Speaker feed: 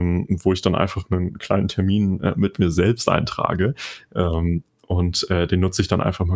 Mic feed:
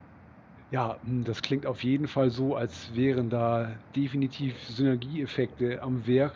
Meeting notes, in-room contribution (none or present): present